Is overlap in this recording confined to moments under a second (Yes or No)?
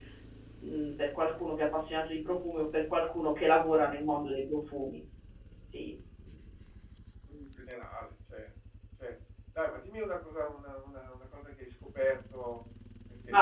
Yes